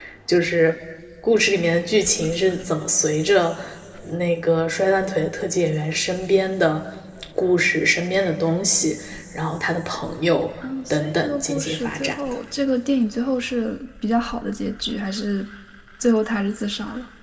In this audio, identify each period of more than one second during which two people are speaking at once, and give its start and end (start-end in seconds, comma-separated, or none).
10.9-12.4